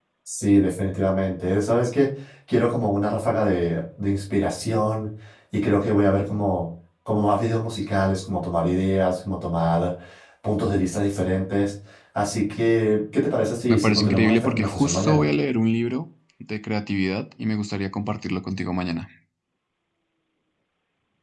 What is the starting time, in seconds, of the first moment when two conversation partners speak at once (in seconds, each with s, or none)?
13.7 s